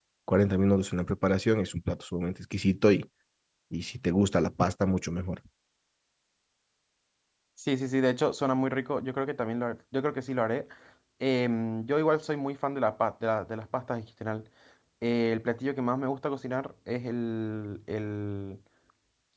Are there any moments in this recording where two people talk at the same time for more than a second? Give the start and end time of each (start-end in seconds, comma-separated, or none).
none